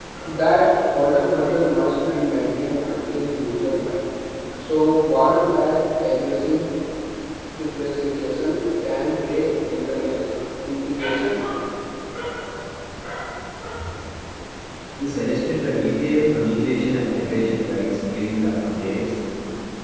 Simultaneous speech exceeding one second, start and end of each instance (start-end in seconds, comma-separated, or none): none